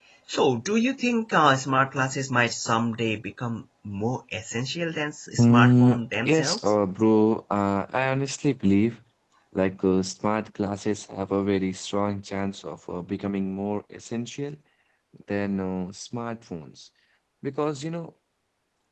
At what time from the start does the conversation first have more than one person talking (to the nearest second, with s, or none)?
5 s